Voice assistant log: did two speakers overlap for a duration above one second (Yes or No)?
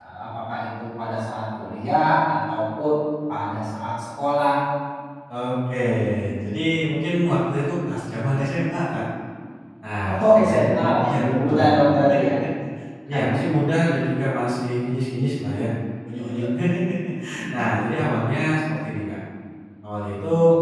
Yes